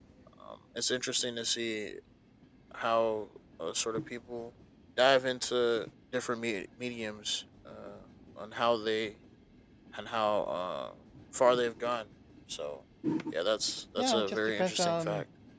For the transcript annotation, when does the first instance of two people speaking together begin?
14.0 s

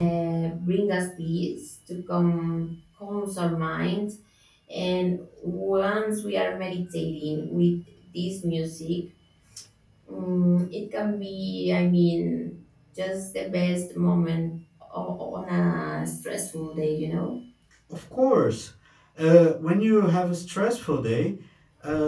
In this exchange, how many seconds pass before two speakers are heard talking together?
none

